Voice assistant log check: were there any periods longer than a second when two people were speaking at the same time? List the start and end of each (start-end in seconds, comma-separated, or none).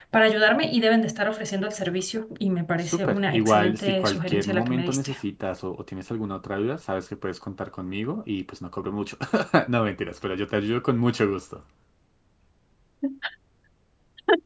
2.8-5.1